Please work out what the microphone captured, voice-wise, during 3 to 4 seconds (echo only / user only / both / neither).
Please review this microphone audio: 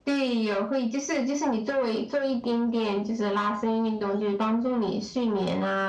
echo only